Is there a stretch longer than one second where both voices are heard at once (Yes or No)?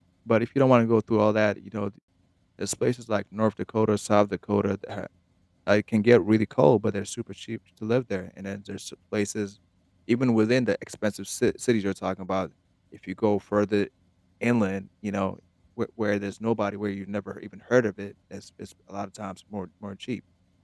No